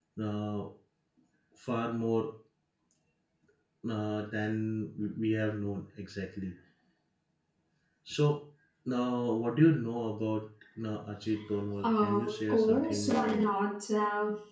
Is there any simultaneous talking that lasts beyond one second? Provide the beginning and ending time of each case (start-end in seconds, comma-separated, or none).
11.8-13.4